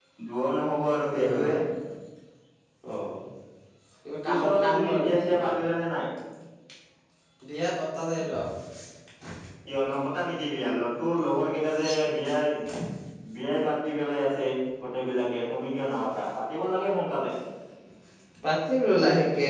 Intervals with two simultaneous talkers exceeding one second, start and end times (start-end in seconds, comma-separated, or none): 4.3-5.5